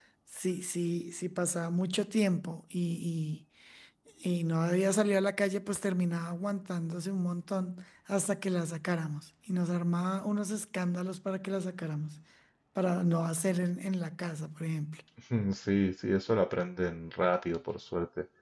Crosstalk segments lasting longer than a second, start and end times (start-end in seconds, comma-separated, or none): none